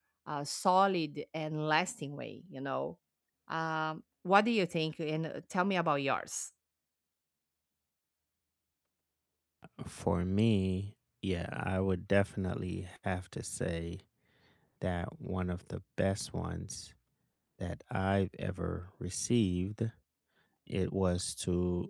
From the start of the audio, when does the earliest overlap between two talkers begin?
none

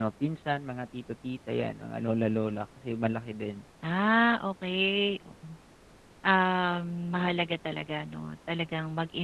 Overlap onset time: none

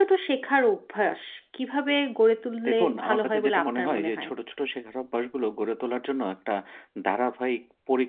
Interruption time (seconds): 3 s

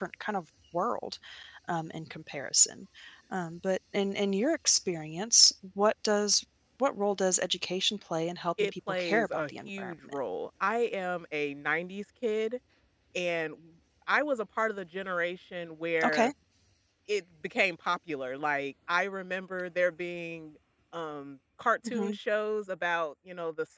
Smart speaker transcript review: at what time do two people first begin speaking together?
9 s

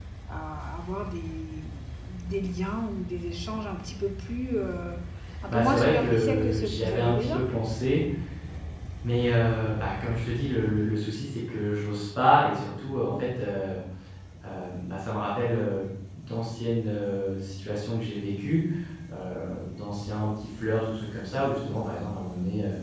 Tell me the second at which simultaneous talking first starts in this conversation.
6 s

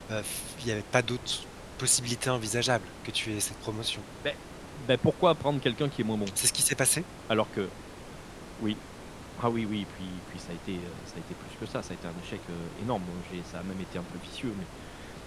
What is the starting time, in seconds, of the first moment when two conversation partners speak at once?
none

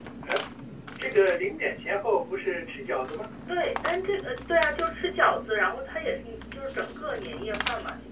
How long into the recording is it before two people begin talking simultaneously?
none

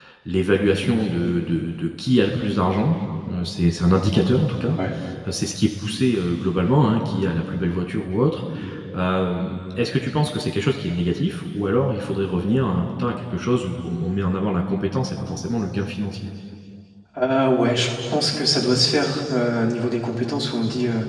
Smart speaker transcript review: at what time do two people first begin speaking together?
none

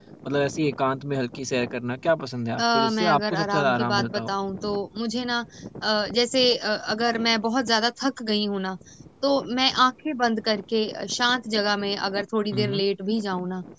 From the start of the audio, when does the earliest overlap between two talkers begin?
3 s

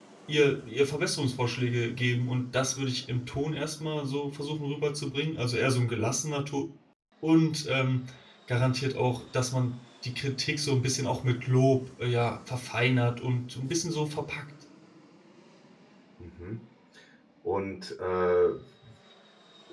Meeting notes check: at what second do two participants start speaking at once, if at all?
none

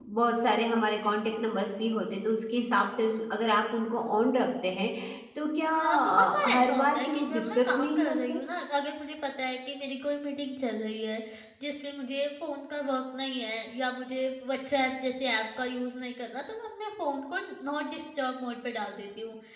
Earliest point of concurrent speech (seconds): 6 s

